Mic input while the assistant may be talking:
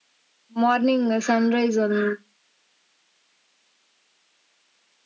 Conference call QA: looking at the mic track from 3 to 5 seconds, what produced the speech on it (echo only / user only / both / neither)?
neither